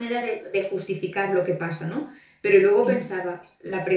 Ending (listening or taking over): listening